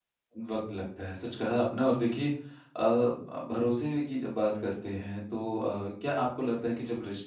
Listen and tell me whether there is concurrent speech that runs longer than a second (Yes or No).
No